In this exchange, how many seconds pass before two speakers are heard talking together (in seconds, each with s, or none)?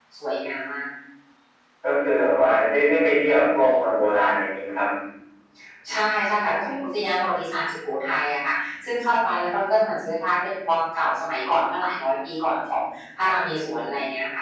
none